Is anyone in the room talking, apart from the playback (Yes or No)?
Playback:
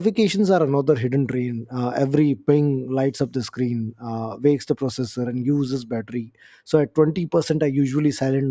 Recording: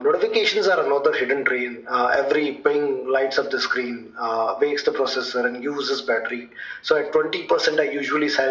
No